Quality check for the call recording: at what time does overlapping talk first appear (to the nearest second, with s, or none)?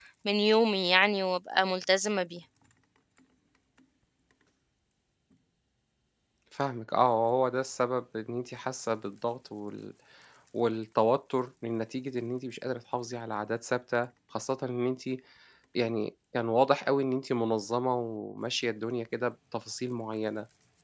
none